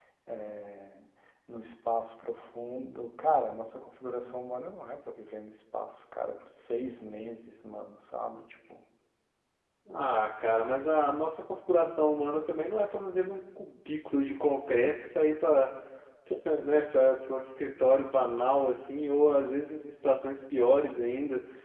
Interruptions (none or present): none